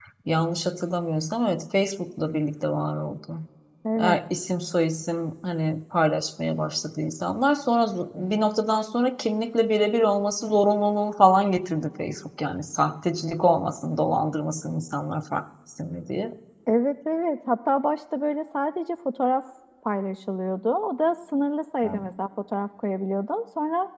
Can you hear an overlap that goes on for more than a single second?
No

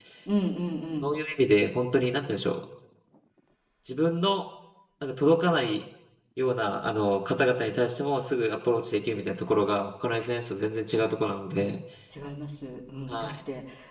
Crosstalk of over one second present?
No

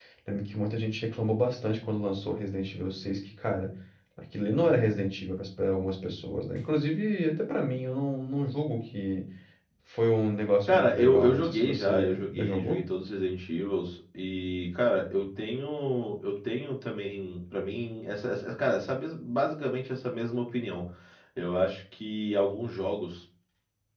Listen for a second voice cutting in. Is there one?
Yes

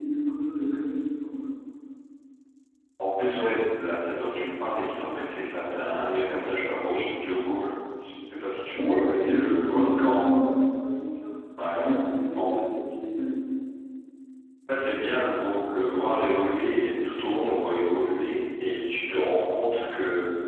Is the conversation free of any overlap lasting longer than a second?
No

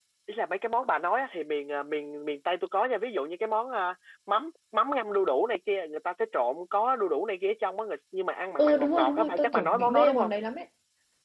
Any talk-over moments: Yes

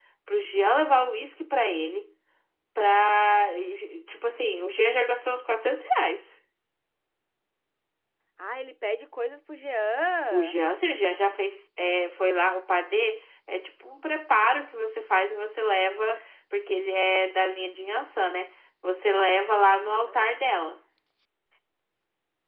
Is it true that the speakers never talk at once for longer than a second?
Yes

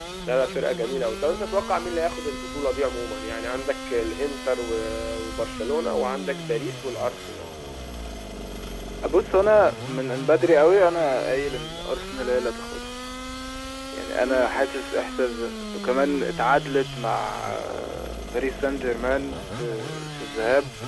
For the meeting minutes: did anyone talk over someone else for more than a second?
No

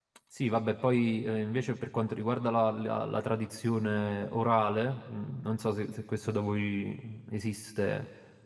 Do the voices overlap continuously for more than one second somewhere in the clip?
No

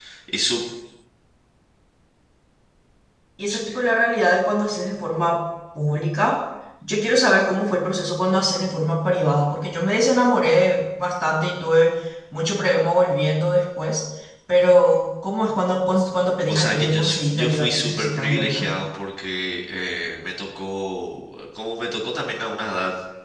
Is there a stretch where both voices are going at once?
Yes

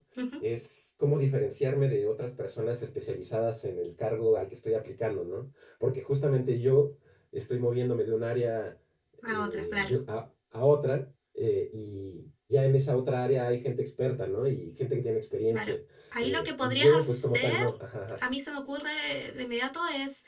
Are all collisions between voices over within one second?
No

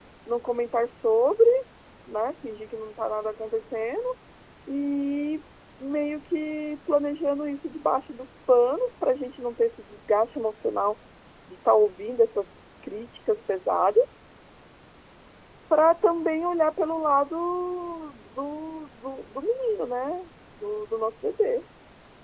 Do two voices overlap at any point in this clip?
No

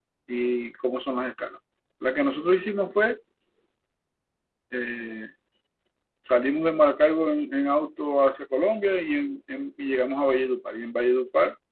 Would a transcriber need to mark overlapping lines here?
No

